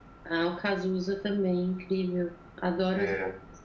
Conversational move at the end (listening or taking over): taking over